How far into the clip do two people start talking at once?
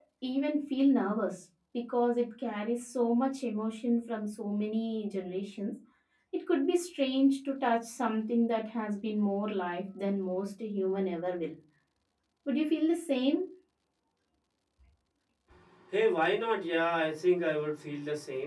none

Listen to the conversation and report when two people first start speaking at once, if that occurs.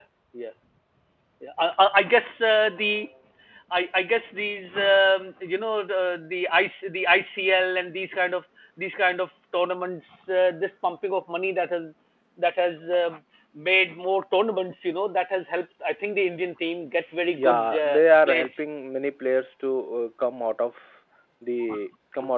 17.4 s

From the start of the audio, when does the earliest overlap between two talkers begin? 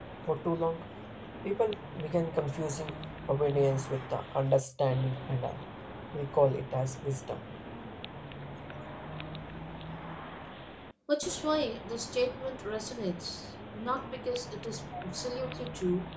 none

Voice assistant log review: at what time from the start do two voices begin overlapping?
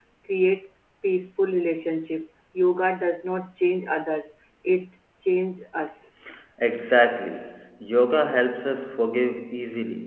none

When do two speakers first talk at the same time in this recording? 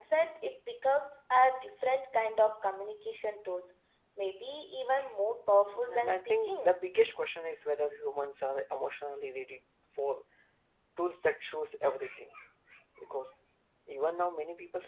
5.5 s

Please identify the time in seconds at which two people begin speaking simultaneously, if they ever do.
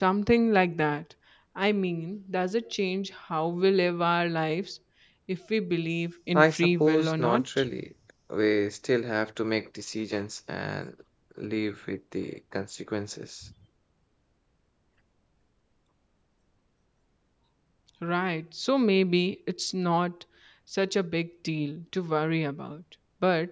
6.3 s

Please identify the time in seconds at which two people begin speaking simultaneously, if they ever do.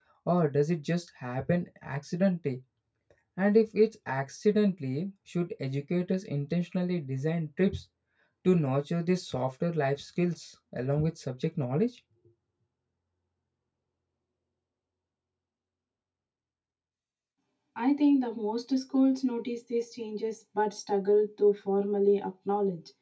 none

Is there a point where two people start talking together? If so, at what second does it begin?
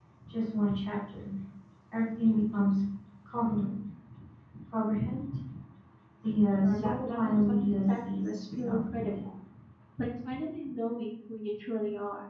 6.6 s

